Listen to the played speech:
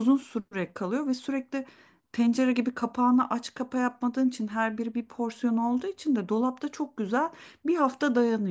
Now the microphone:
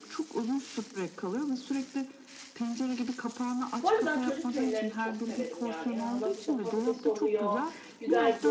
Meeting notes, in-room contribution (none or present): present